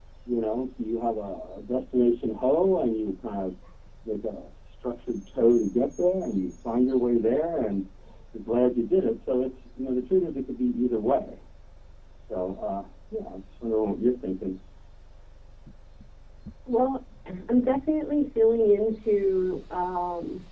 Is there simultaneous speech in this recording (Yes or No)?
No